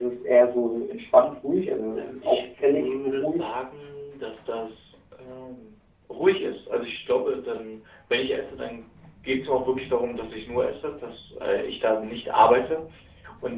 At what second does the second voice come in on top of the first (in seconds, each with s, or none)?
1.9 s